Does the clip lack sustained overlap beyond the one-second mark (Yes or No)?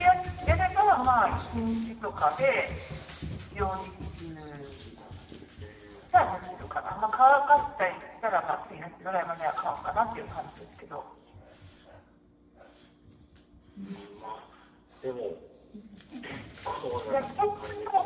Yes